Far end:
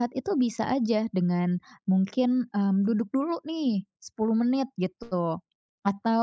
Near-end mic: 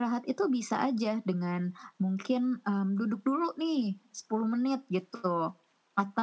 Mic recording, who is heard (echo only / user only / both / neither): echo only